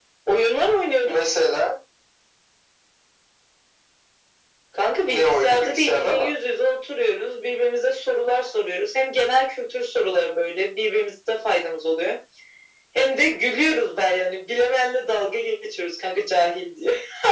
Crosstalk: present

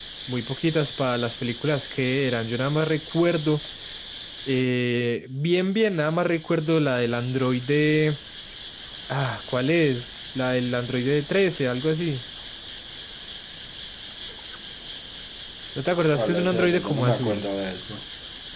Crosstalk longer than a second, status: present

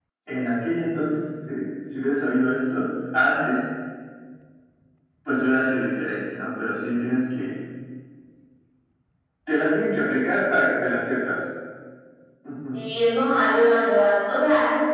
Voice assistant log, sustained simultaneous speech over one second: none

